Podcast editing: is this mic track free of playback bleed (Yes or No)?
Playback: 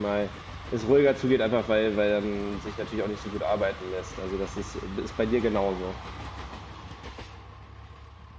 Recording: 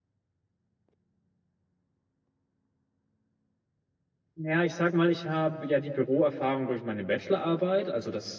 Yes